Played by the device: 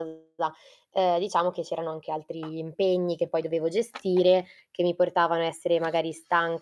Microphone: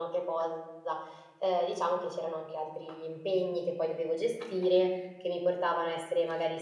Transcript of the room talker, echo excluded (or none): none